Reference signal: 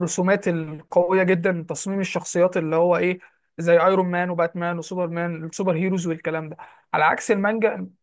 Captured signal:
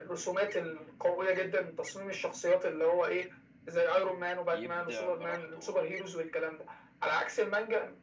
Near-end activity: present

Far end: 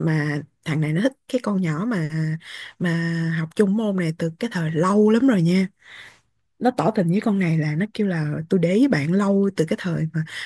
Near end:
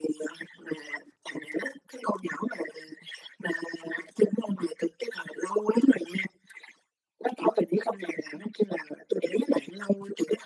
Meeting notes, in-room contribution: none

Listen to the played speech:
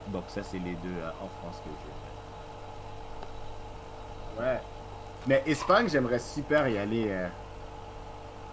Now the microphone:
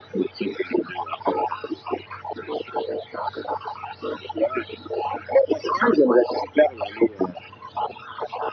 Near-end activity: none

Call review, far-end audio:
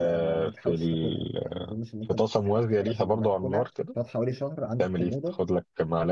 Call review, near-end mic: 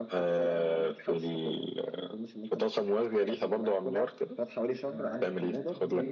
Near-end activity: present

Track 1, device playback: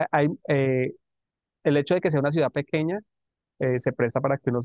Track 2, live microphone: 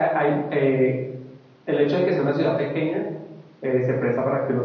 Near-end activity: none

